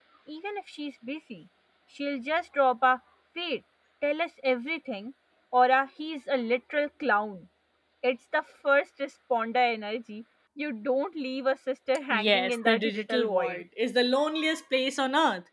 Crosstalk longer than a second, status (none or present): present